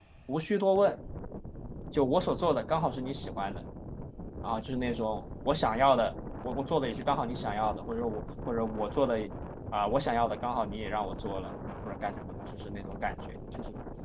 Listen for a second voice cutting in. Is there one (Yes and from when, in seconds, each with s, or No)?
No